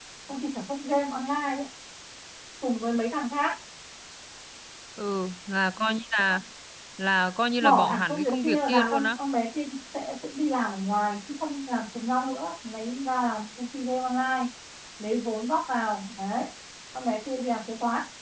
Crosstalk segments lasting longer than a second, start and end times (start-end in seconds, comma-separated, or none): 7.6-9.2